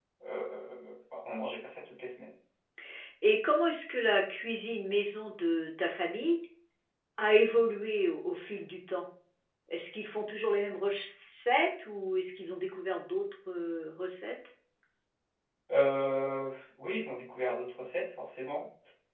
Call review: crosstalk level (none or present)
none